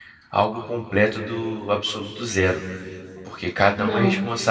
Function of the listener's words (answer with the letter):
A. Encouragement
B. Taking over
A